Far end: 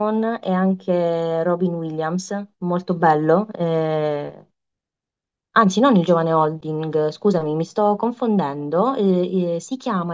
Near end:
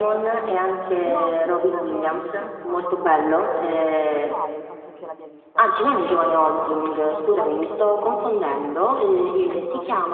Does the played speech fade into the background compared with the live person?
No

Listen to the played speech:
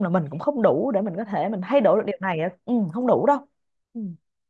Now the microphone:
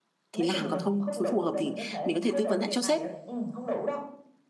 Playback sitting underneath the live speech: Yes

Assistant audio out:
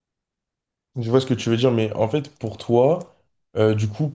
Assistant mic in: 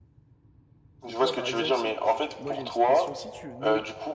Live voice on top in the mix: No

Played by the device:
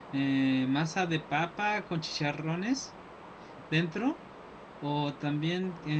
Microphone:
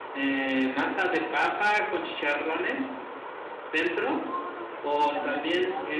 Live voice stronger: No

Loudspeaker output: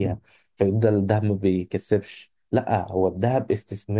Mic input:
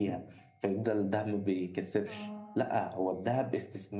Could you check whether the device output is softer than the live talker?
No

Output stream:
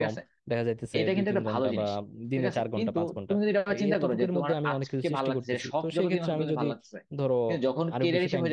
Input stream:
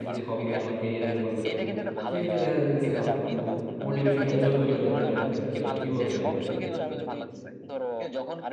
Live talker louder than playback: Yes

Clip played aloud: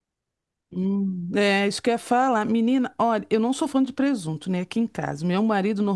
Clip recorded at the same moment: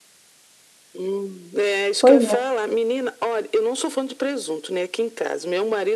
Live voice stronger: Yes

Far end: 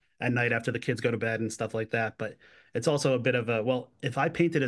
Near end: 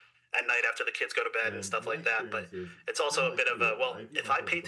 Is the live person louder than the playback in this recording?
No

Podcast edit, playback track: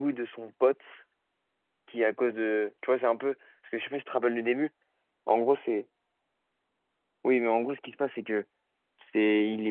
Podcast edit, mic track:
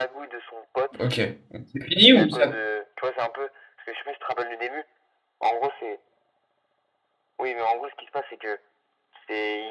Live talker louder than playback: Yes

